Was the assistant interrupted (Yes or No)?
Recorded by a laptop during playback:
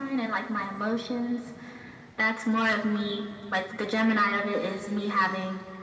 No